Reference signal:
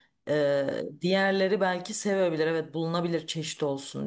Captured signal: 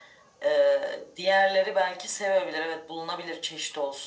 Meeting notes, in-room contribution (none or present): none